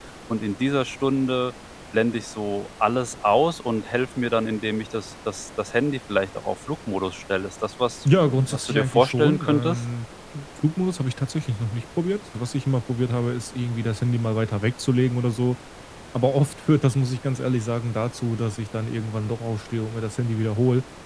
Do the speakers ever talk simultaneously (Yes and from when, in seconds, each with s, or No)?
Yes, from 8.5 s